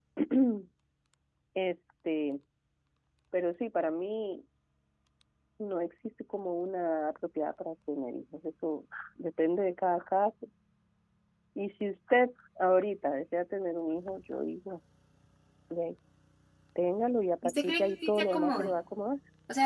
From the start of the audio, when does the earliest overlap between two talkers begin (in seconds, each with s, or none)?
17.4 s